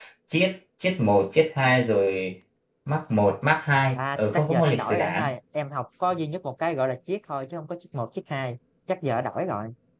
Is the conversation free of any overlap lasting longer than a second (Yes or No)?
No